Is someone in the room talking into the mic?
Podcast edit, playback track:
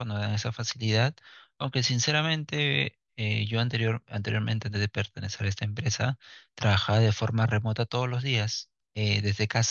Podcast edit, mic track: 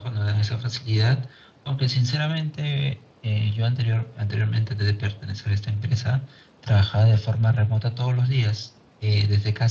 No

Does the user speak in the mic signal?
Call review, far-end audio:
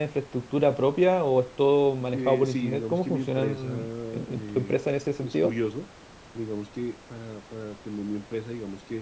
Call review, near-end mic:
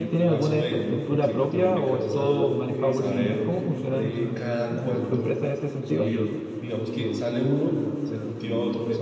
Yes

